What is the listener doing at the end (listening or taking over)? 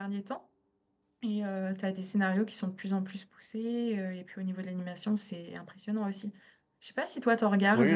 taking over